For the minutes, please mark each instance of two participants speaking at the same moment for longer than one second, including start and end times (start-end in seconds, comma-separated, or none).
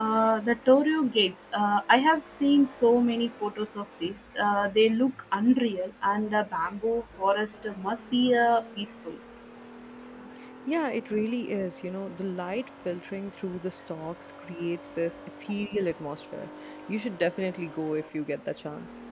none